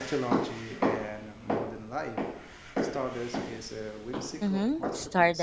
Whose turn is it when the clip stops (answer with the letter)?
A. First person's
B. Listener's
B